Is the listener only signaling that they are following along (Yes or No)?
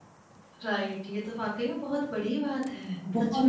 No